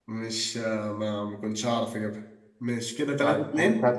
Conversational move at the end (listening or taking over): taking over